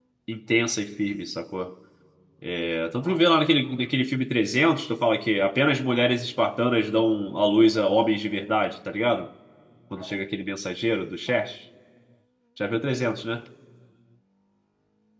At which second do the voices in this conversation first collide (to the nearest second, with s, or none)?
none